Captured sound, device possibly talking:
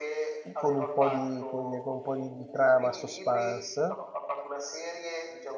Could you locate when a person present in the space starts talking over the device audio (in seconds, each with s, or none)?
0.5 s